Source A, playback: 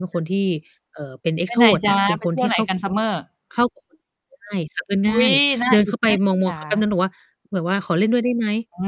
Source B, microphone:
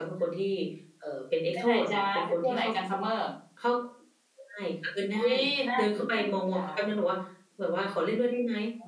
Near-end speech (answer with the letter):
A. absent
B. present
A